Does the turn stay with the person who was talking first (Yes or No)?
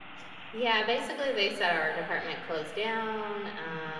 Yes